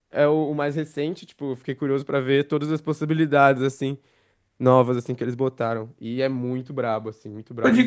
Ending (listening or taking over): taking over